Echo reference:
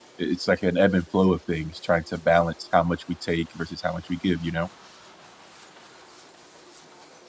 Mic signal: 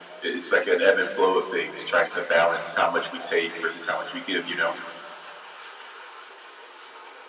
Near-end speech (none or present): none